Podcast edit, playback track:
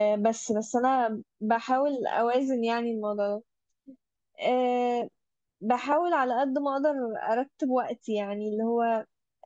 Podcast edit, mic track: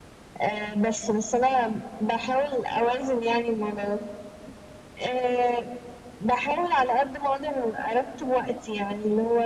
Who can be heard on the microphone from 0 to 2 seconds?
echo only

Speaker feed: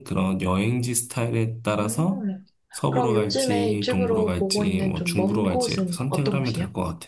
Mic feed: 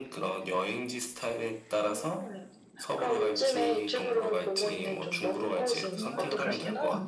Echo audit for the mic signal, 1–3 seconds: echo only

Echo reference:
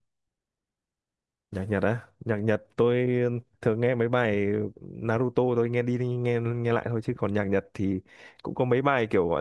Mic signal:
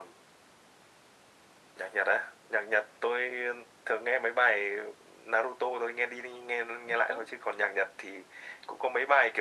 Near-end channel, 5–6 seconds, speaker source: echo only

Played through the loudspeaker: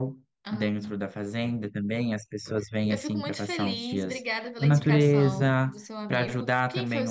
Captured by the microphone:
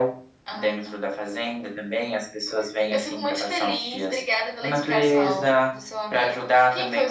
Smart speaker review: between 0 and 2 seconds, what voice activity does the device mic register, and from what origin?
echo only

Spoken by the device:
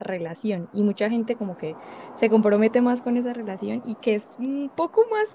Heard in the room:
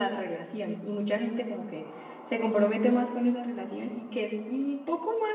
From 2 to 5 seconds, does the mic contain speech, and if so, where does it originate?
echo only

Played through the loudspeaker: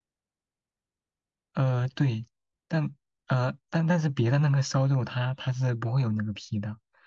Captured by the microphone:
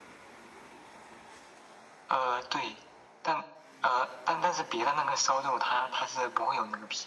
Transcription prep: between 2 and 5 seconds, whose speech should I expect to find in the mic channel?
echo only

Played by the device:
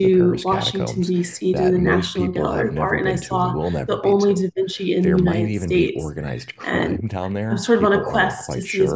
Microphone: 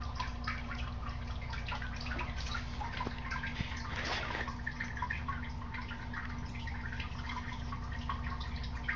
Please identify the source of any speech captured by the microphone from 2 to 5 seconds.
neither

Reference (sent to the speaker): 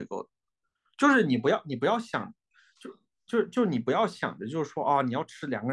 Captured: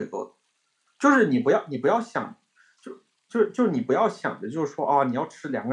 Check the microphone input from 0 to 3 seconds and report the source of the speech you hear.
echo only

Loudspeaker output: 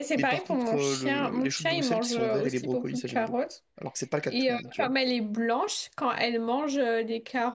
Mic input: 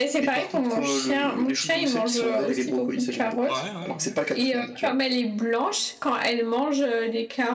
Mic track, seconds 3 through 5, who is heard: both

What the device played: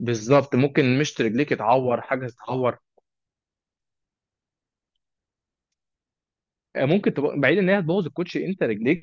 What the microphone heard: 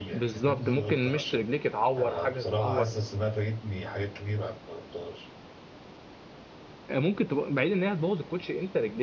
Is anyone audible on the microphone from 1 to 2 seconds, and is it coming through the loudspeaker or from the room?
both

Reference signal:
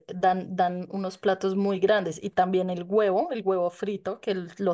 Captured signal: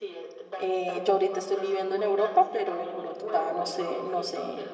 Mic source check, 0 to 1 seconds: both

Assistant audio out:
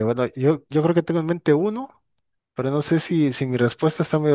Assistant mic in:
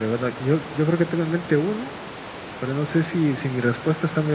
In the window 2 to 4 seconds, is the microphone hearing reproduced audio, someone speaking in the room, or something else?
echo only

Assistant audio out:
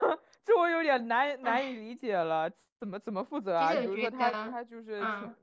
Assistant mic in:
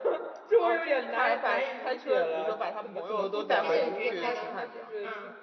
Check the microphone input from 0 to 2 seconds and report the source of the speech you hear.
both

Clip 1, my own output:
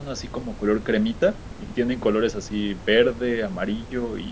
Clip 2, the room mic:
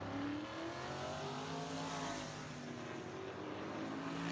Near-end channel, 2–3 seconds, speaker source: neither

